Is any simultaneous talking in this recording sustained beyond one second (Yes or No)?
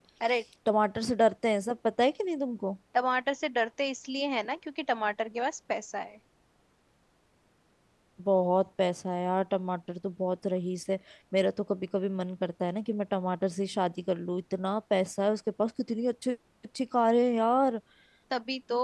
No